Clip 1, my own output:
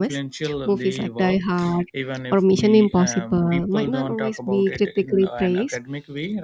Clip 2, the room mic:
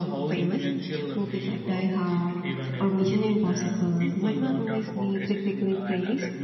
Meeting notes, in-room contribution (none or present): none